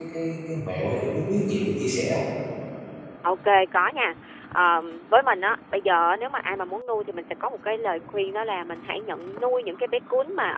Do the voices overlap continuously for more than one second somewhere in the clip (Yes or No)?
No